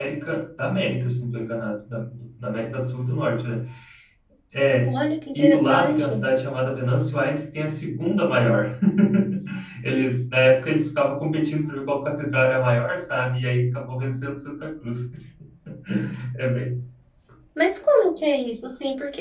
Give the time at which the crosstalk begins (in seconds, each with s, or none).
4.8 s